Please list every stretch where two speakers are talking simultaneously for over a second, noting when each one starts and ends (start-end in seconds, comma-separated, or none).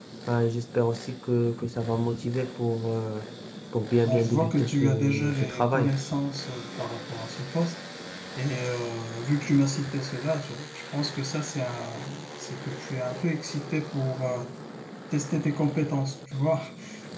4.0-5.9